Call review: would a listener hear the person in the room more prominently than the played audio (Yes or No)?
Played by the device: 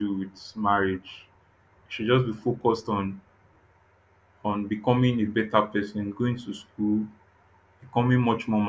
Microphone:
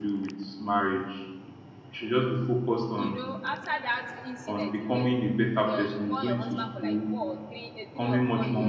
No